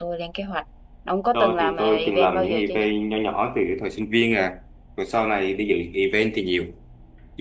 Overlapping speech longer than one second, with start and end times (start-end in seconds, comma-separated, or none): 1.3-2.8